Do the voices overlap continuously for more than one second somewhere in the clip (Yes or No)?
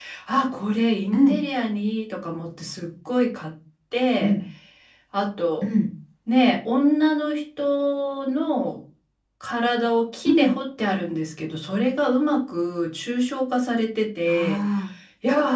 No